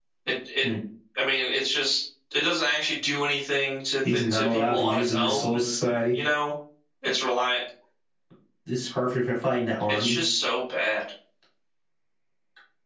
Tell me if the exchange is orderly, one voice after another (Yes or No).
No